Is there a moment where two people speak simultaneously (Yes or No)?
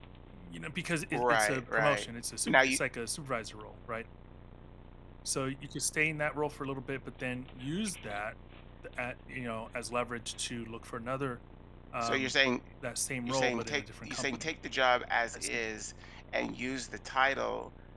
Yes